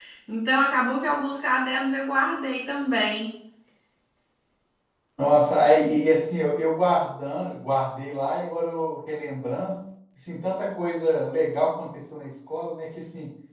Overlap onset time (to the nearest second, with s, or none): none